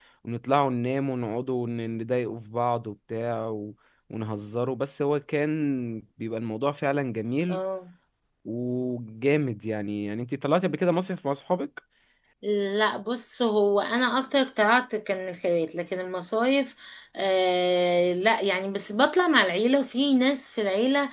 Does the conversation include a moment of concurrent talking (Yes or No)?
No